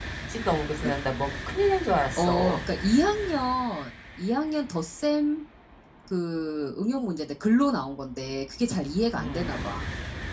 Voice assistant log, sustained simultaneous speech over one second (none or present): none